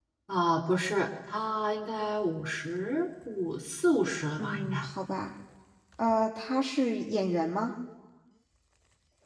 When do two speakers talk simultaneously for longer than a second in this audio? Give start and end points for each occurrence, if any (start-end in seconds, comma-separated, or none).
none